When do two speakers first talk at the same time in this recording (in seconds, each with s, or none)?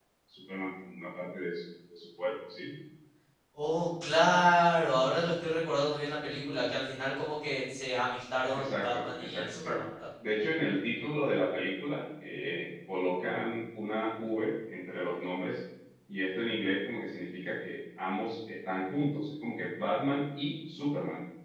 8.5 s